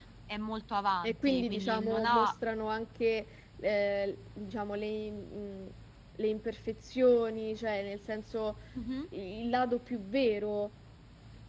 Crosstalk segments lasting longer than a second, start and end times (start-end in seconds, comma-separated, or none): 1.0-2.3